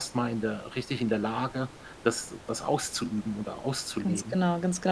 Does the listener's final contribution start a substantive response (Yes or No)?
Yes